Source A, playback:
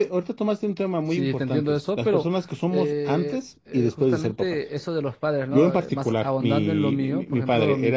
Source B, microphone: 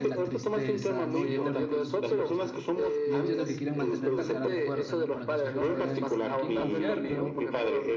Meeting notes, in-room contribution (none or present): present